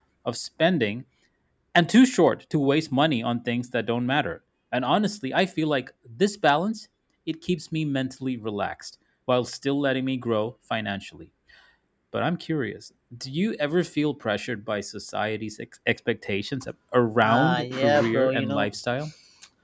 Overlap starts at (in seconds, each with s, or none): 17.2 s